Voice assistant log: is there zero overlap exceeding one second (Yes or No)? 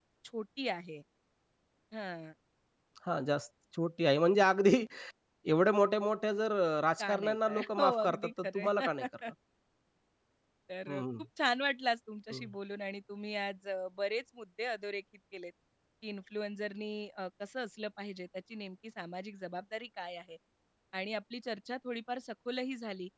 No